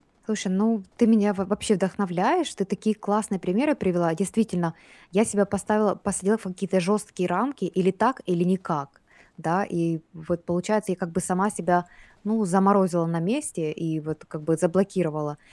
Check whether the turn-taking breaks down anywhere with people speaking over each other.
No

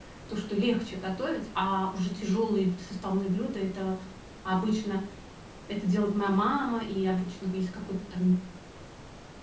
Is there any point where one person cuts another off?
No

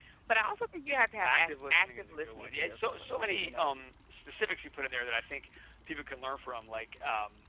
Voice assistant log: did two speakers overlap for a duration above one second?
Yes, from 1.2 s

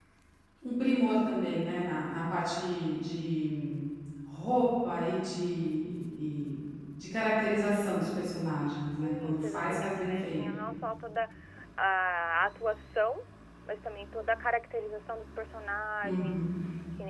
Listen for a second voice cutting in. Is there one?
Yes, from 9.0 s

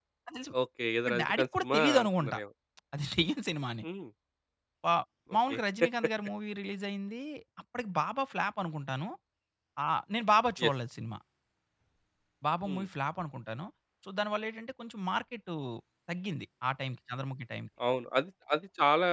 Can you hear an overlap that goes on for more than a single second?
Yes, from 1.1 s

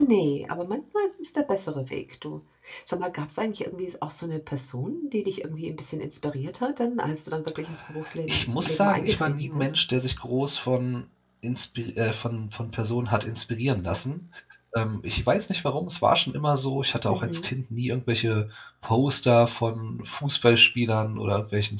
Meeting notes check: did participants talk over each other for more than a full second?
Yes, from 8.3 s

